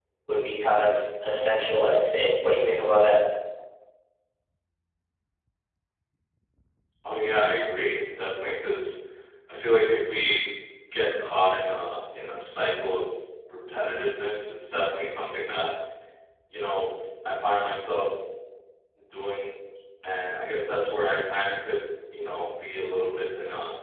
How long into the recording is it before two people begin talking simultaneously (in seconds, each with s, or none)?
none